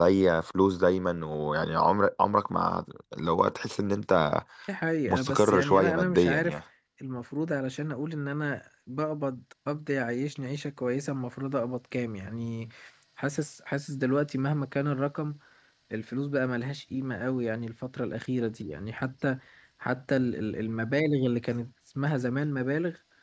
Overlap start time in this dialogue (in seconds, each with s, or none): 5.1 s